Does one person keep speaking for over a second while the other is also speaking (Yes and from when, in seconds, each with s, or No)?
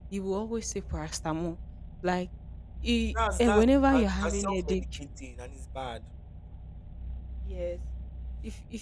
Yes, from 3.4 s